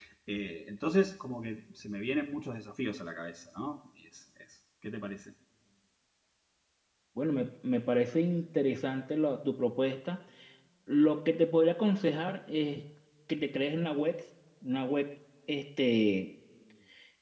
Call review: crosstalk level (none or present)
none